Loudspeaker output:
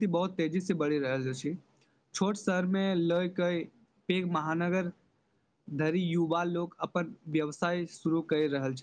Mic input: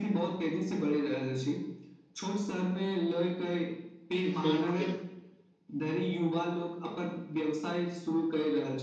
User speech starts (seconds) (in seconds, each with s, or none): 4.2 s